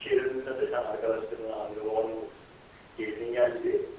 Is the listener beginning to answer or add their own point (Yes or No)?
No